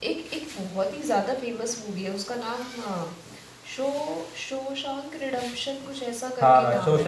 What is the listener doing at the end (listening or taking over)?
taking over